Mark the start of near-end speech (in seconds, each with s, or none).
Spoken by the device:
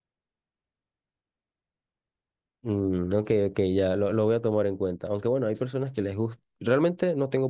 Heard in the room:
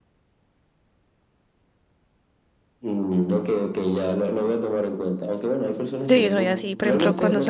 6.1 s